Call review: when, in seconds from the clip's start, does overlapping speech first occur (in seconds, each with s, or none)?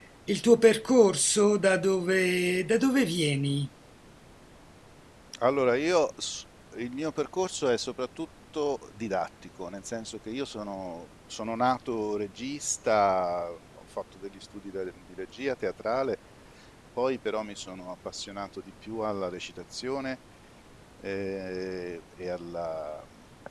none